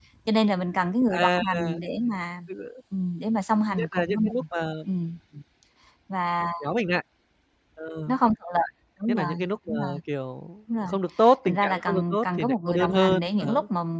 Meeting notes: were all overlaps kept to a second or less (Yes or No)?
No